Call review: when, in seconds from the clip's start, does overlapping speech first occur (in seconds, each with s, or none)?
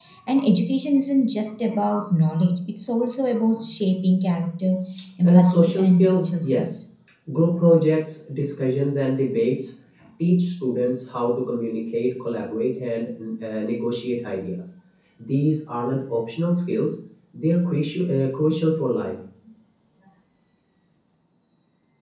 5.3 s